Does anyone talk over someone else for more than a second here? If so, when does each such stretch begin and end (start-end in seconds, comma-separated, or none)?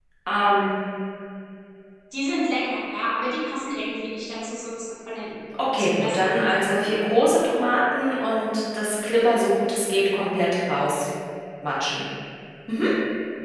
5.8-7.0